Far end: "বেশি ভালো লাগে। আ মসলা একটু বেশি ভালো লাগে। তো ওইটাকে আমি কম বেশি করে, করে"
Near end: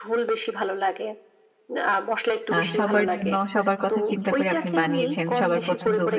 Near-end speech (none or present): present